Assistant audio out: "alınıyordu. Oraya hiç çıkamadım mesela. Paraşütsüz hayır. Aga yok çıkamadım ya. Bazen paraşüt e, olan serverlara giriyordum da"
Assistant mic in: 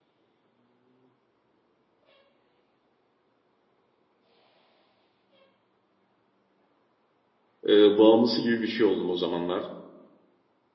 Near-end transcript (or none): e, bağımlısı gibi bir şey oldum o zamanlar.